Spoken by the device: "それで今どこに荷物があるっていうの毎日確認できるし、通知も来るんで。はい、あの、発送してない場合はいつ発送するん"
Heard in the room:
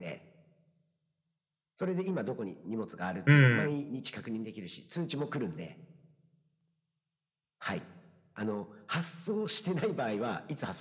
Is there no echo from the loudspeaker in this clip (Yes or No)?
No